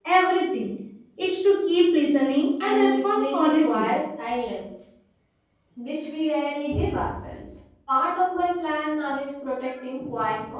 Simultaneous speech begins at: 3 s

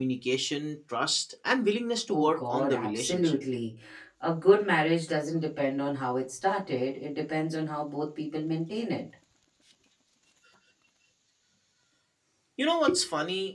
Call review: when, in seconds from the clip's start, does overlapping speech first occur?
2 s

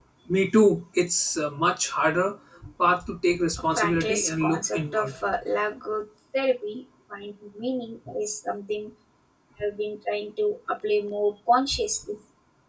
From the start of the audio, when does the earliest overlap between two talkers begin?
4 s

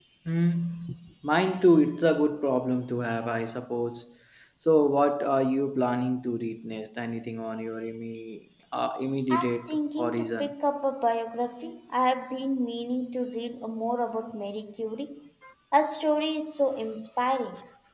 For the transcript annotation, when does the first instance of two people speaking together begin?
9 s

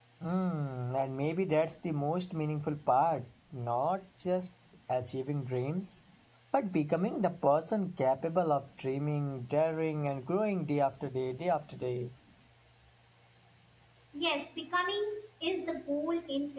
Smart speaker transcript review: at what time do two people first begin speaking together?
none

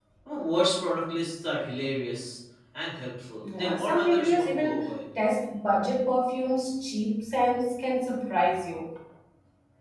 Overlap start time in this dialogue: 3 s

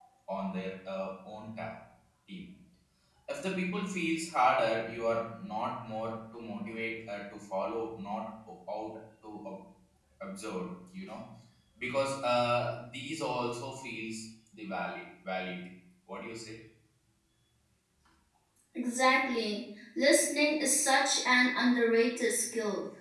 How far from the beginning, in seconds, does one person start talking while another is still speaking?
none

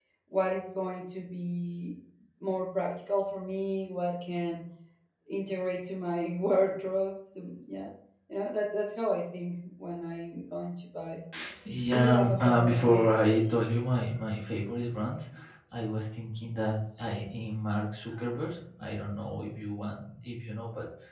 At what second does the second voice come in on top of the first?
12 s

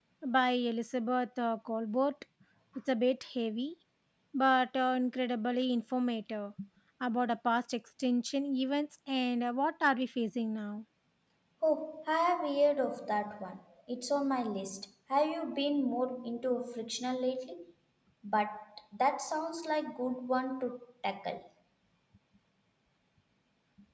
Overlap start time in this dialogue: none

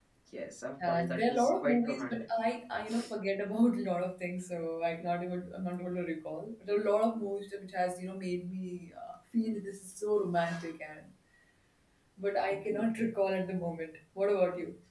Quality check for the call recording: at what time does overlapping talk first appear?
1 s

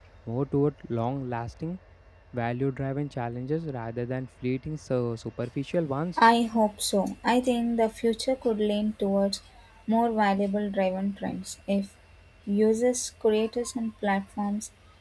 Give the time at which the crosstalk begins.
none

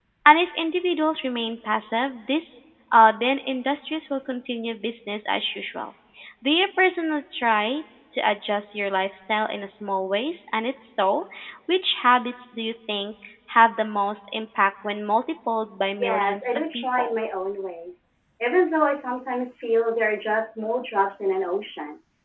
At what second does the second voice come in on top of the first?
16 s

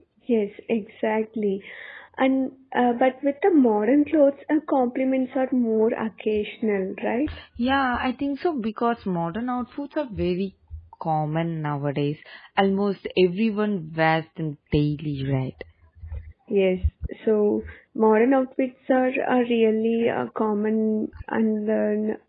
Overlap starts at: none

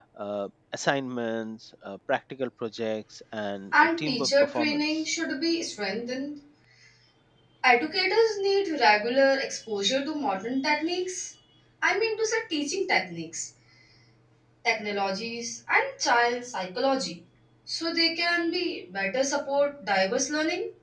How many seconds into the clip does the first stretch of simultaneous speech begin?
4 s

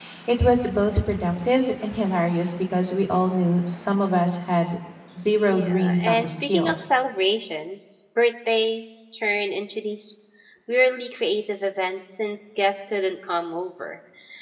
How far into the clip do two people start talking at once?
5 s

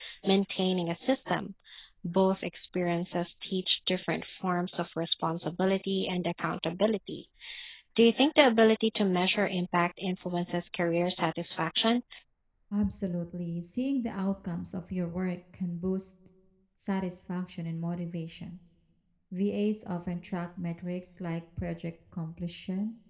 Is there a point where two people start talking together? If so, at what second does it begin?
none

